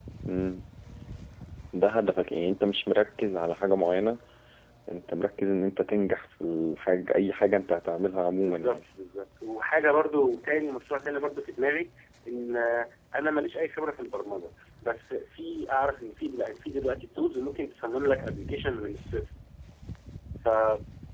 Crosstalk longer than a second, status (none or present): none